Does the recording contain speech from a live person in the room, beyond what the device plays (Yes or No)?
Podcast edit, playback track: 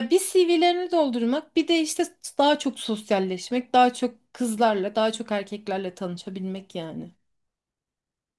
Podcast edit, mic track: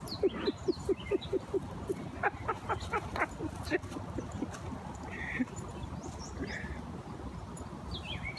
No